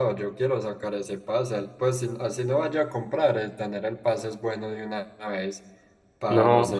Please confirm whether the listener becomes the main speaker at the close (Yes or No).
No